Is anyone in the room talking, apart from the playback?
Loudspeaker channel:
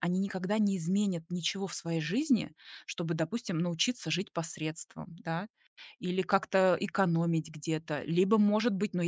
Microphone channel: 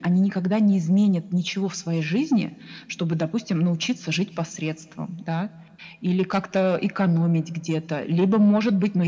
No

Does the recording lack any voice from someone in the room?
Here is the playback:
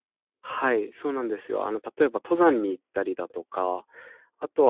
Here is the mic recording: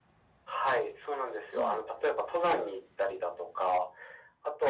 No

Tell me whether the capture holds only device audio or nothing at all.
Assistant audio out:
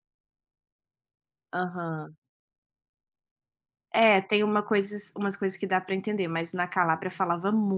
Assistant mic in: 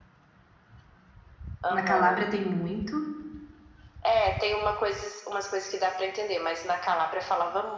No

